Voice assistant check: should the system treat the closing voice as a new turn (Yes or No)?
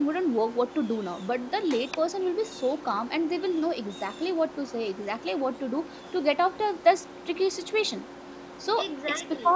No